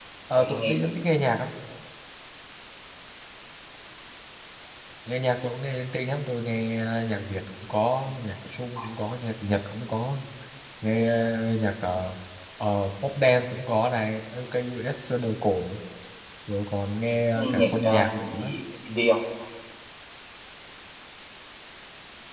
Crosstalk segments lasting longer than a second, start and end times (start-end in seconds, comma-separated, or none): 17.4-18.6